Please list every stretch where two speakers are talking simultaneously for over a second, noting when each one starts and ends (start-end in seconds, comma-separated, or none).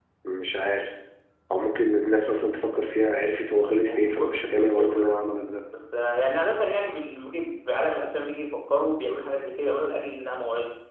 3.5-5.2